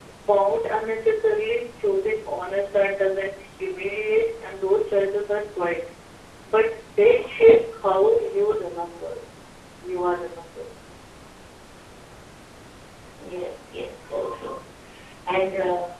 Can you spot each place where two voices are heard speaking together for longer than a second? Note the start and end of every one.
none

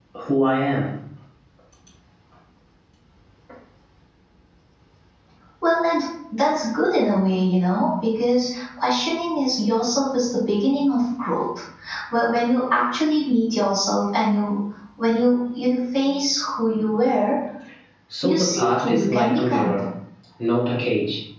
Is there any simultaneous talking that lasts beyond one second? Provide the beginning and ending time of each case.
18.2-19.8

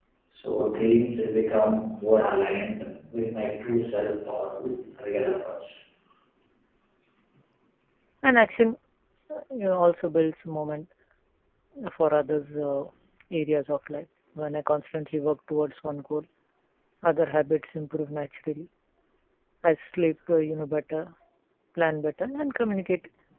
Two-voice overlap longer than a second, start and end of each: none

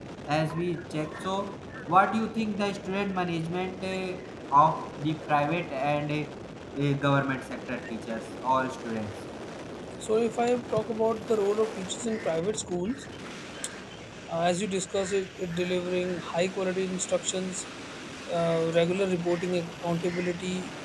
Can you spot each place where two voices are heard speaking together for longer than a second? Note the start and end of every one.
none

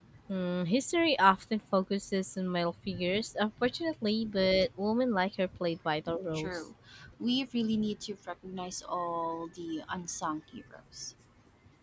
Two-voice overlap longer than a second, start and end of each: none

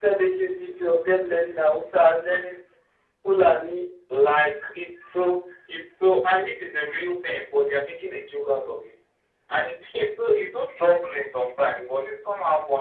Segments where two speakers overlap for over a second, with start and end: none

